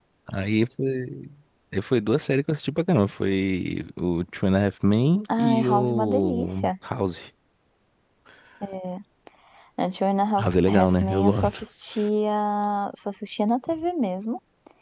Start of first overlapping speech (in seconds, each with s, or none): 5.4 s